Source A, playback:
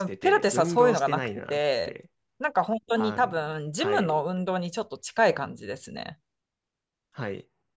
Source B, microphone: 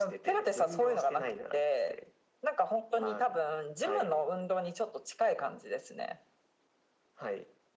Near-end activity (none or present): none